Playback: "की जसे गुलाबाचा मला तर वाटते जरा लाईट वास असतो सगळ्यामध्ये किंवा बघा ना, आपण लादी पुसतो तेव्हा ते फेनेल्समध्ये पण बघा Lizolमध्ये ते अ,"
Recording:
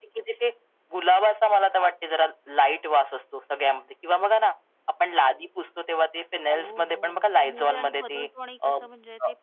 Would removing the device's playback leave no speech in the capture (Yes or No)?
No